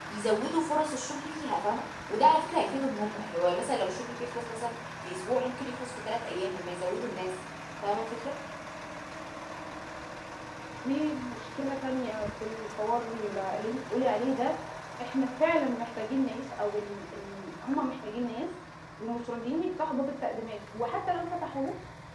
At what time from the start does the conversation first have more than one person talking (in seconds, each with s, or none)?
none